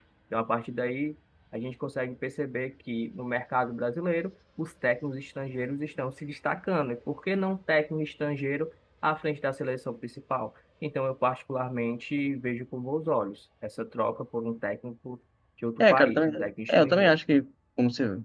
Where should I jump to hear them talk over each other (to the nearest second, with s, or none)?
16 s